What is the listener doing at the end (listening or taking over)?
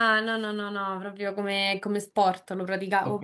taking over